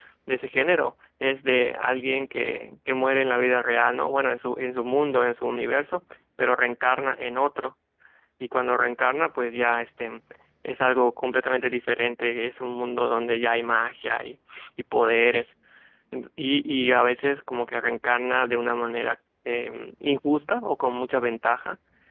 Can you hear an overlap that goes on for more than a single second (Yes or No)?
No